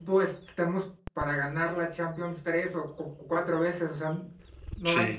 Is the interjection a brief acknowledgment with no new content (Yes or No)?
Yes